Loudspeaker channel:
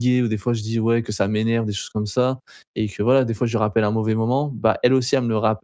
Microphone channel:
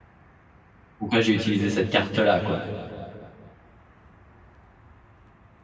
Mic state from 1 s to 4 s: user only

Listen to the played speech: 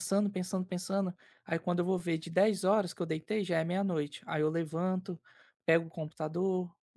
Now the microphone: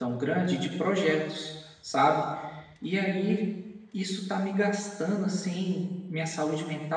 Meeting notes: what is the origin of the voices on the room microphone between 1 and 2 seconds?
user only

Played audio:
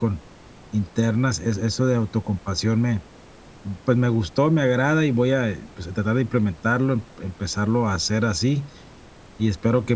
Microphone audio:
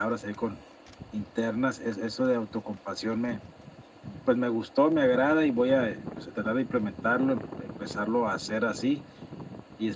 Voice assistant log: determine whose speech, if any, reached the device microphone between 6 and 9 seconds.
echo only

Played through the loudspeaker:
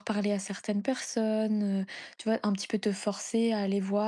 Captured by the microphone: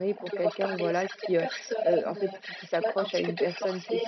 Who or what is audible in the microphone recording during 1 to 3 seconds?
both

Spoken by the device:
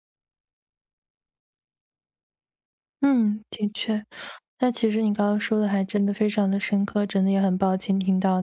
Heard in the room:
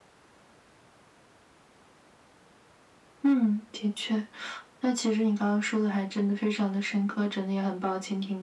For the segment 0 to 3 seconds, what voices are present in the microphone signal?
neither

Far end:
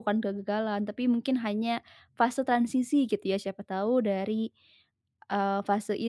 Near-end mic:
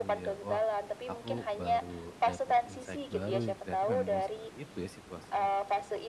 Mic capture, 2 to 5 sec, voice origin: both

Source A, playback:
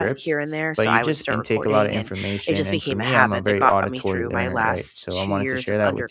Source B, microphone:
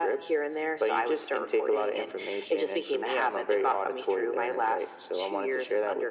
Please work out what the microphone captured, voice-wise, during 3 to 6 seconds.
echo only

